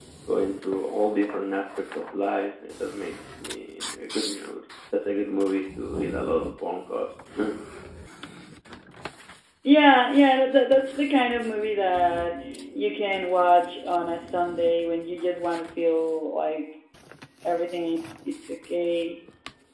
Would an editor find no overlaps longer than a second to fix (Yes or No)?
Yes